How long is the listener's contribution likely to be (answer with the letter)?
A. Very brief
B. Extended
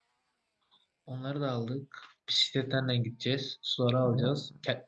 A